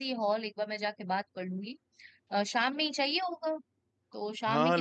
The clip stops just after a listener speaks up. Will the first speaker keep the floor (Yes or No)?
No